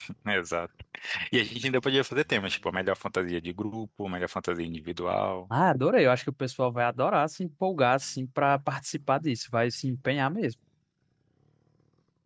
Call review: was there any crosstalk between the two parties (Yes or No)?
No